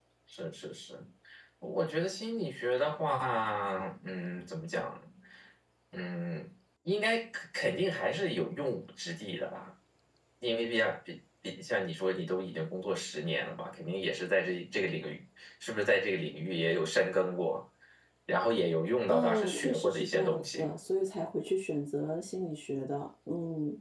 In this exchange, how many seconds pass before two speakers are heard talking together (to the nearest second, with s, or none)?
19 s